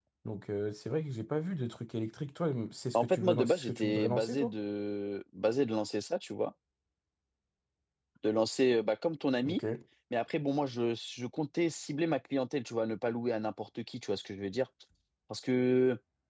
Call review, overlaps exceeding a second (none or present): present